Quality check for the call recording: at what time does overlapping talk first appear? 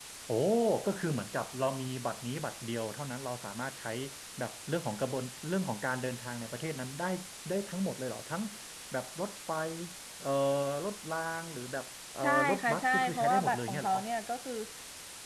12.2 s

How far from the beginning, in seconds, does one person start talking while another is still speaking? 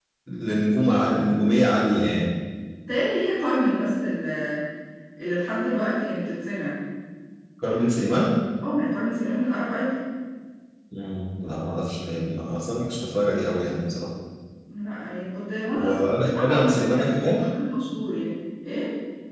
15.7 s

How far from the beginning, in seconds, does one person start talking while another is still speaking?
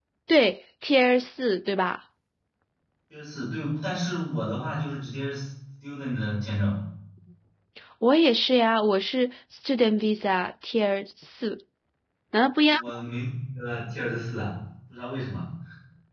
none

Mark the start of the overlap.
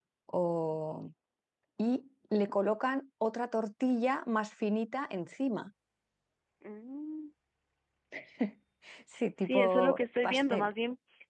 9.4 s

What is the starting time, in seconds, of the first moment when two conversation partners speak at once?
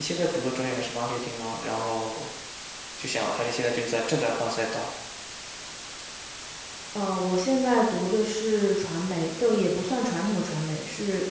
none

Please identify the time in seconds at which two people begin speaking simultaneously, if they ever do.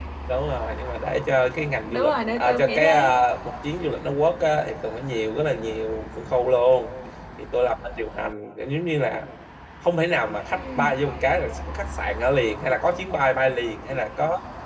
1.8 s

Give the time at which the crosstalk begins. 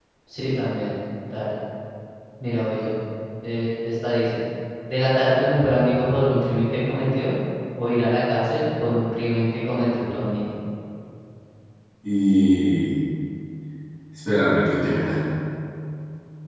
none

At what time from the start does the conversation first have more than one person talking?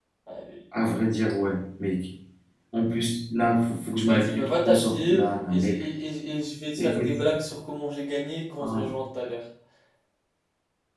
4.1 s

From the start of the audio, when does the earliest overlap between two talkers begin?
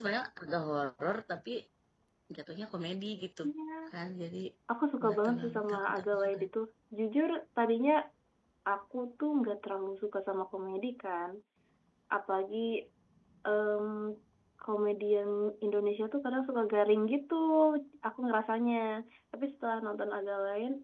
5.0 s

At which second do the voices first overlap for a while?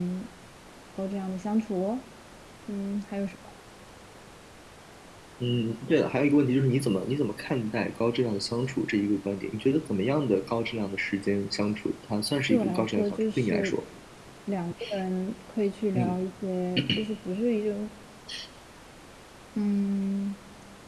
12.5 s

